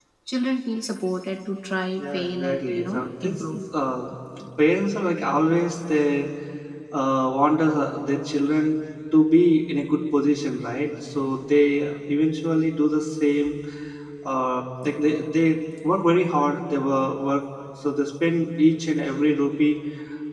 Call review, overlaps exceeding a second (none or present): present